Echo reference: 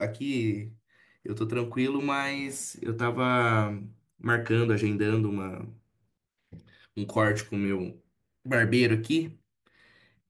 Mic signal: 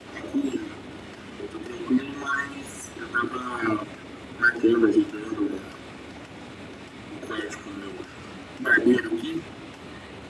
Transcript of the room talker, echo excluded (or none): none